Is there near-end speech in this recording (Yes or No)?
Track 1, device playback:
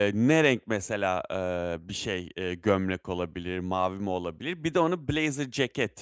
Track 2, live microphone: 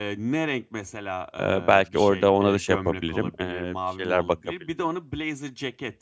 Yes